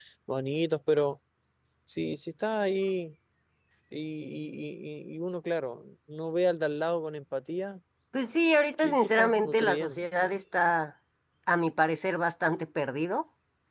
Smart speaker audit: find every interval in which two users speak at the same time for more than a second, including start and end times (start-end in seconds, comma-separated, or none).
8.8-10.0